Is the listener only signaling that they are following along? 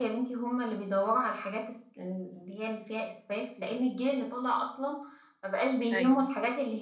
Yes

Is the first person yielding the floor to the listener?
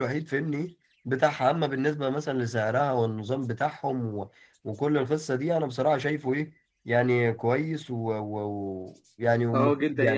Yes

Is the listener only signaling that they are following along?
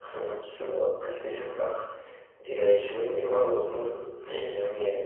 No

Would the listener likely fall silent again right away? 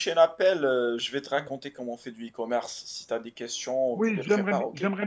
No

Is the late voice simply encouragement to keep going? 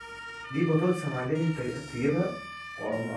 Yes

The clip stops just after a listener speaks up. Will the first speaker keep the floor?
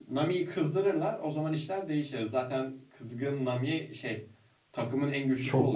No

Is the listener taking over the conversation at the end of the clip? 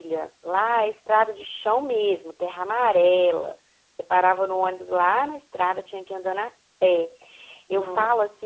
No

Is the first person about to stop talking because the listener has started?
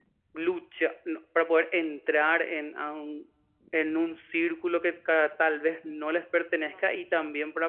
No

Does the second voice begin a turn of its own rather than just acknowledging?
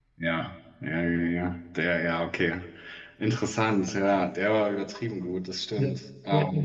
Yes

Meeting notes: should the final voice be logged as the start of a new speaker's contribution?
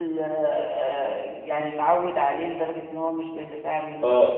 Yes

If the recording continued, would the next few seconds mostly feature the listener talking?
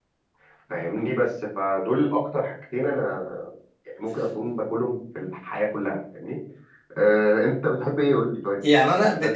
Yes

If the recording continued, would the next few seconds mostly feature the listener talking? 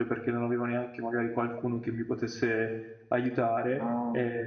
No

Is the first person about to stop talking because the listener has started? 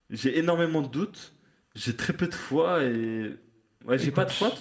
Yes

